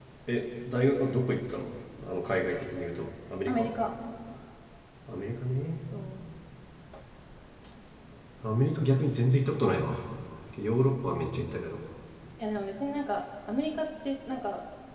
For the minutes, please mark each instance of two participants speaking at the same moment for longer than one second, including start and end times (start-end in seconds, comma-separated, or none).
none